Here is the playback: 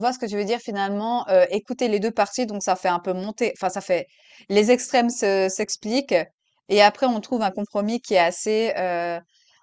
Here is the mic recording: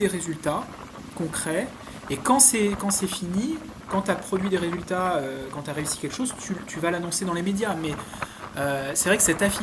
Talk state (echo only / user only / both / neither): user only